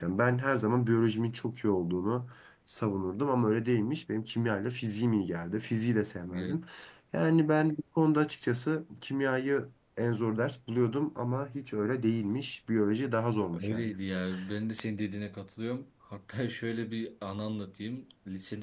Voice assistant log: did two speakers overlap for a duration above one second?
No

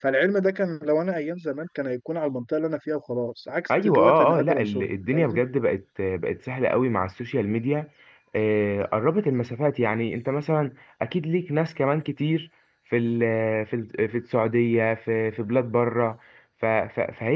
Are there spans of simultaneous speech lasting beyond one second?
Yes, from 3.7 s

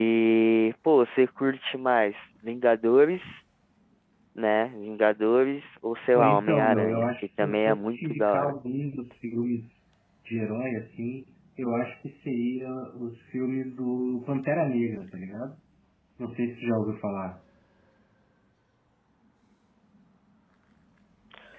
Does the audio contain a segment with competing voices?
Yes, from 6.1 s

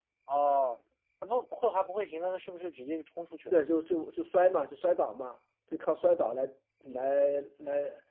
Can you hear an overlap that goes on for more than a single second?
No

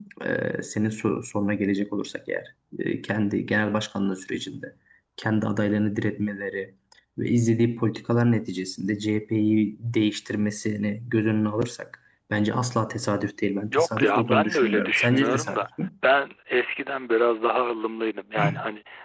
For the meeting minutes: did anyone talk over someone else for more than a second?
Yes, from 13.7 s

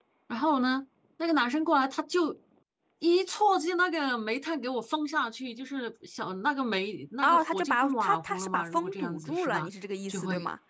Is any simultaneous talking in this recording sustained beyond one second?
Yes, from 7.2 s

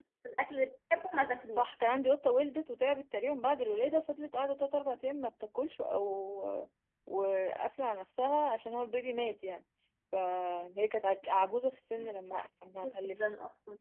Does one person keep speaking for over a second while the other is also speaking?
No

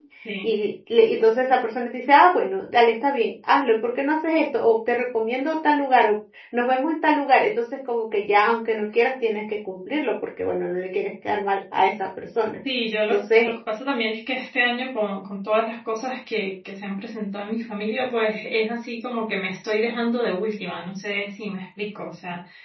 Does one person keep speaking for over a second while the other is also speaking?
No

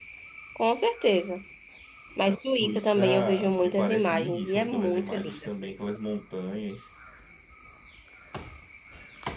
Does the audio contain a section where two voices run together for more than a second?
Yes, from 2.3 s

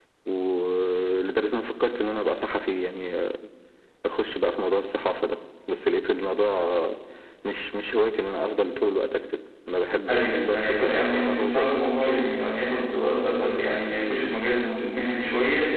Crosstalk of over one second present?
Yes, from 10.1 s

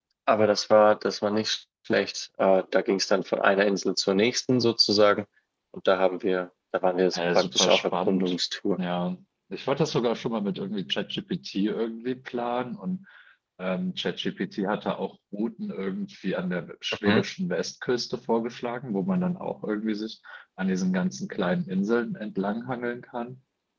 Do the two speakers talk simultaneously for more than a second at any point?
Yes, from 7.1 s

